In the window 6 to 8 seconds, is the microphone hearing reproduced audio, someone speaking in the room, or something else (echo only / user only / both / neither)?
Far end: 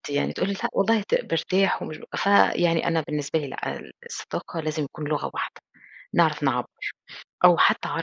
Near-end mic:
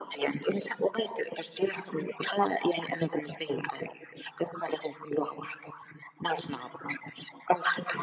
echo only